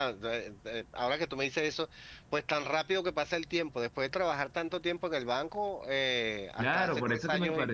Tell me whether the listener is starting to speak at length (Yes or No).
Yes